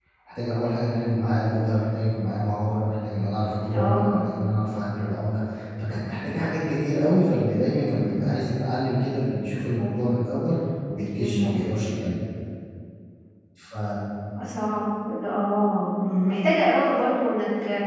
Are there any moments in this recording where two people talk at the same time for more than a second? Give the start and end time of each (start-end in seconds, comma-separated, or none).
none